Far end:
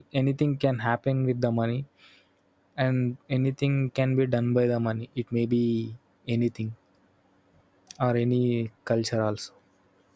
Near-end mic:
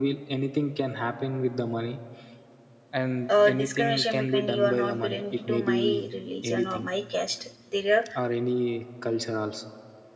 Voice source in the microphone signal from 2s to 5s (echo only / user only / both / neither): both